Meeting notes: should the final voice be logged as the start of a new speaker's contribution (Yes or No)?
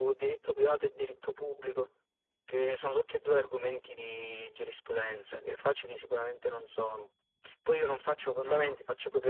No